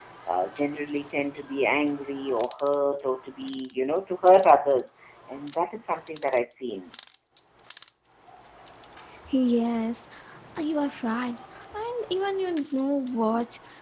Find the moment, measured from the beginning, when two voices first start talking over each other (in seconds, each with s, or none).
none